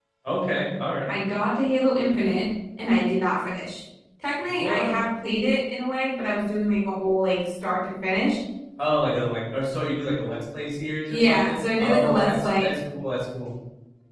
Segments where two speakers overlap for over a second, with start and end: 11.1-12.7

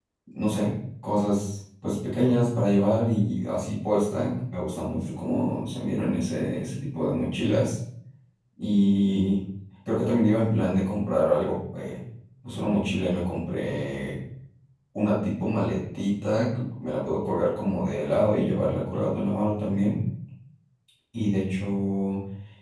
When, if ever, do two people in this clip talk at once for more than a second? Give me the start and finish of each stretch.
none

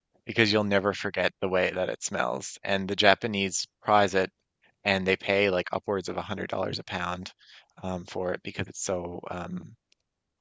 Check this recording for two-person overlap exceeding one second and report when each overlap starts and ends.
none

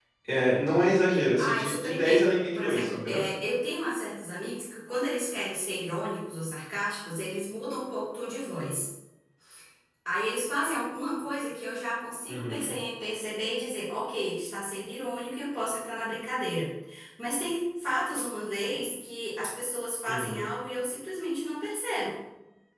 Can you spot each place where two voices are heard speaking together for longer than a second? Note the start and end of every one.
1.4-3.2

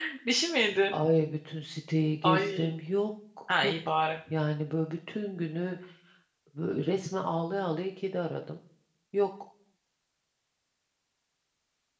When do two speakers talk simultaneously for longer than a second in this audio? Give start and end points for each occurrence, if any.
none

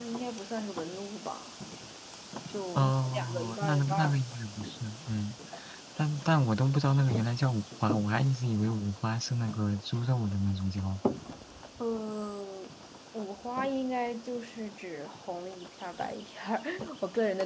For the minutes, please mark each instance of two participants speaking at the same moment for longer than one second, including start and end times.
2.8-4.2

